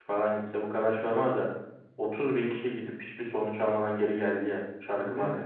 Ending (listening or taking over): taking over